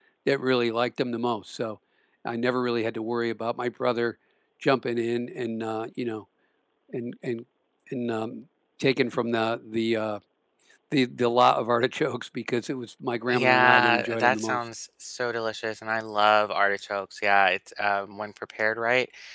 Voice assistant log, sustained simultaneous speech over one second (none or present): present